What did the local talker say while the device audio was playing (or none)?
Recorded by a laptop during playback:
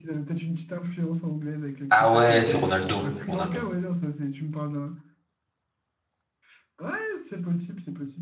Ah ouais, c'est Ronaldo. Ronaldo.